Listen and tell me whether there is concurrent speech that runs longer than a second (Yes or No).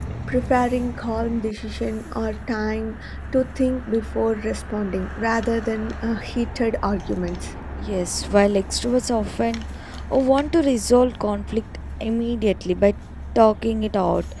No